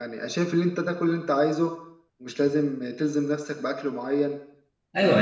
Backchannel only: No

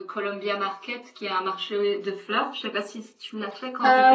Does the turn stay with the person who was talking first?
No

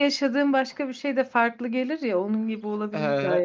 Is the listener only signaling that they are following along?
No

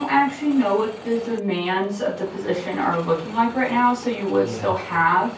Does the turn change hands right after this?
No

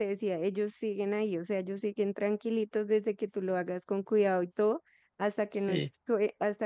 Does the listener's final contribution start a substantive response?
No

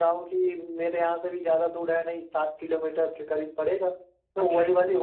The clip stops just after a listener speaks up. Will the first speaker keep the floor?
Yes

